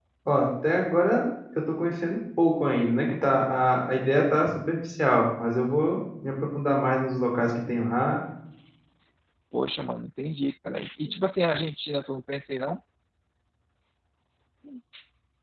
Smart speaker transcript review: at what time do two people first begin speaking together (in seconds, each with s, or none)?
none